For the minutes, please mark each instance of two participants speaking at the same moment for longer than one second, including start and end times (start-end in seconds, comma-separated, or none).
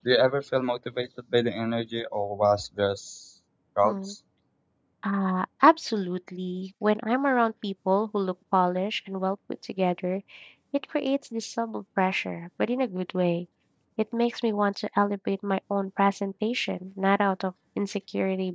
none